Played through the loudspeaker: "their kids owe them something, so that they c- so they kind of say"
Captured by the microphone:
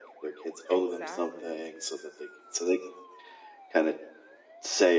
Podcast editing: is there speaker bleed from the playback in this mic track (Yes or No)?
Yes